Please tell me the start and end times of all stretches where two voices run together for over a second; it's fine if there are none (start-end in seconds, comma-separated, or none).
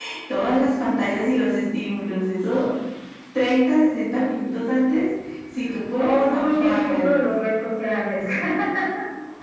6.0-7.2